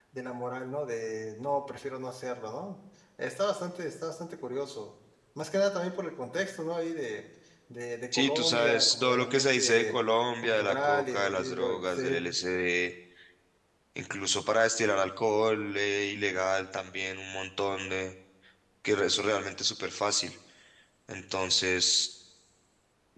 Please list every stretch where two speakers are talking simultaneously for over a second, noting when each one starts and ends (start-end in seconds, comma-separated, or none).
8.2-10.0, 10.4-12.2